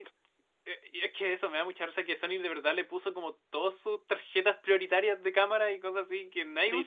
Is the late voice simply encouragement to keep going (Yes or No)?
No